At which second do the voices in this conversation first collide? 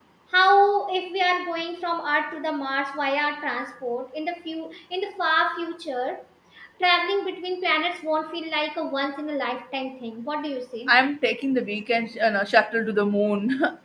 none

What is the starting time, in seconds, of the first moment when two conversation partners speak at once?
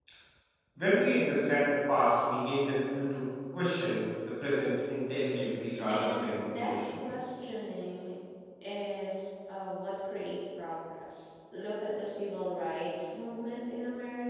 5.8 s

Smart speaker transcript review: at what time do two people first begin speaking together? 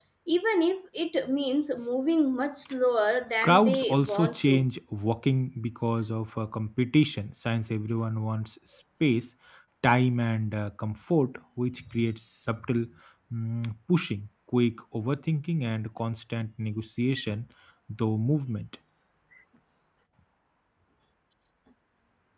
3.4 s

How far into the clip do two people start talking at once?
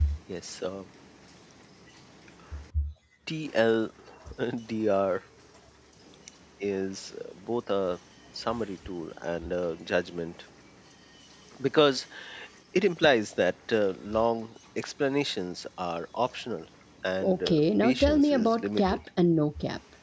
17.2 s

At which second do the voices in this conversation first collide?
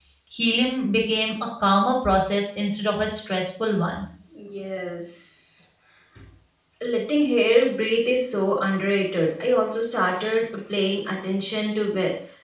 none

